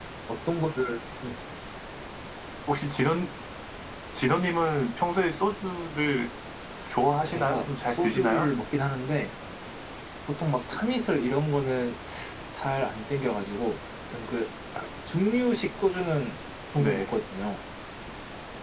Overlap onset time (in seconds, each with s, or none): 7.2 s